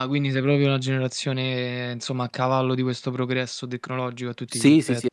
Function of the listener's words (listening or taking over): taking over